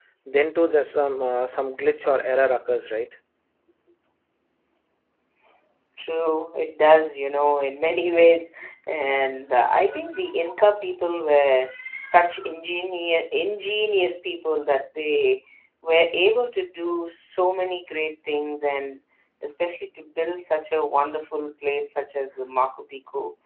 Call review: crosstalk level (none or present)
none